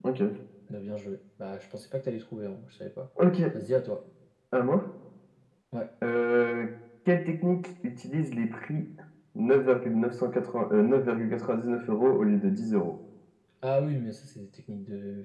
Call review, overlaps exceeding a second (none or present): none